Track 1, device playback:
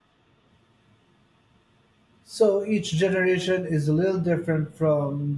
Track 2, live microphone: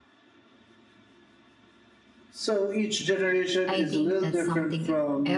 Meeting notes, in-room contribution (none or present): present